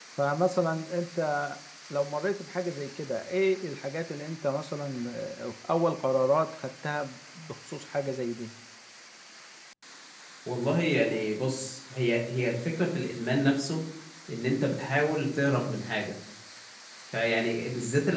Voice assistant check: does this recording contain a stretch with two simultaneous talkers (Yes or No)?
No